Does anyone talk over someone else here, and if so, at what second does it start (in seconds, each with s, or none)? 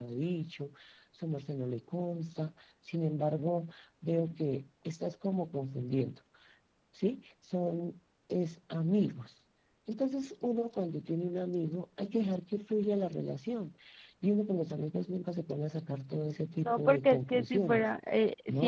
16.6 s